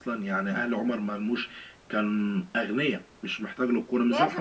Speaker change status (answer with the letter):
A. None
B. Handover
B